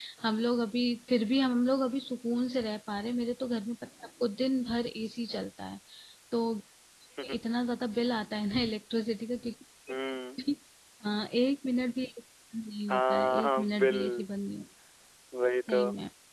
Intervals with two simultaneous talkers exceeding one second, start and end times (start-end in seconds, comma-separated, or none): 12.9-14.3